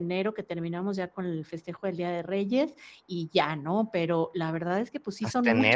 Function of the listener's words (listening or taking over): listening